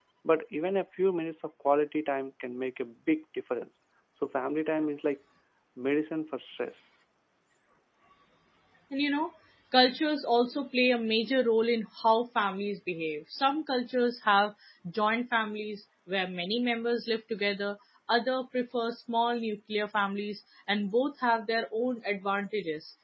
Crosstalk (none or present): none